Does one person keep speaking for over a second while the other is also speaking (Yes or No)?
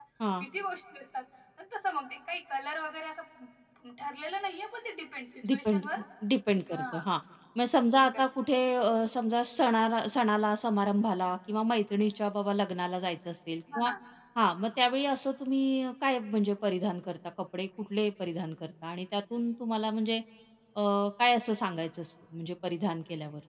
No